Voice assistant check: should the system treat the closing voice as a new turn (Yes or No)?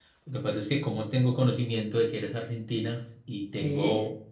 No